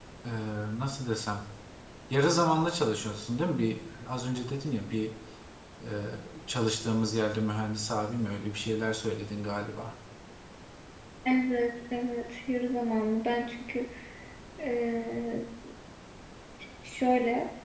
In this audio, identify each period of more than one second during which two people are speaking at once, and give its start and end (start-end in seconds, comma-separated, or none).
none